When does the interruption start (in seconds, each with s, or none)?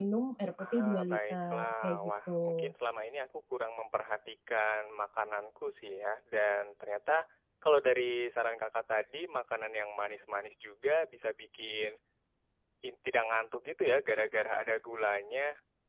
0.7 s